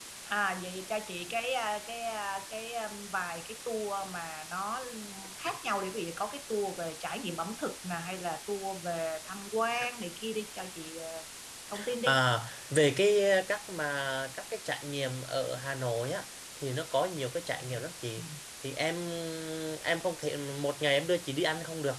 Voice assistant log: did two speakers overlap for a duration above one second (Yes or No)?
No